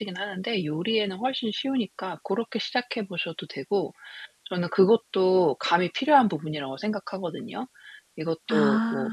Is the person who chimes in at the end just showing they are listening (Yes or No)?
Yes